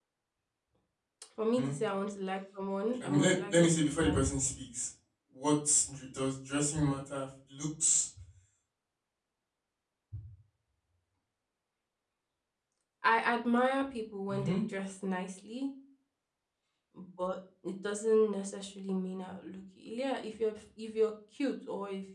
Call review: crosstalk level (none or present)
present